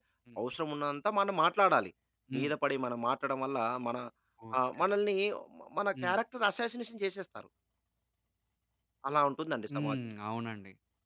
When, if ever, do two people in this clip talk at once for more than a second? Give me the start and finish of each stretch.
none

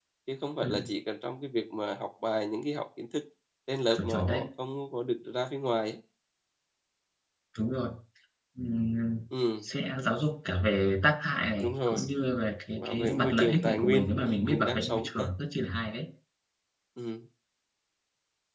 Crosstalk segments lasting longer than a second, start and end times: 12.8-15.3

